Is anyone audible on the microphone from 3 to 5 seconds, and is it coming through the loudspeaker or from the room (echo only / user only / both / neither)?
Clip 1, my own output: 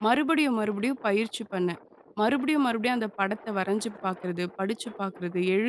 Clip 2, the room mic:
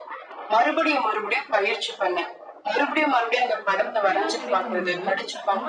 both